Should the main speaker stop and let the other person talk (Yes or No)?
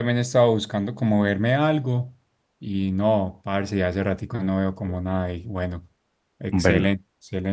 No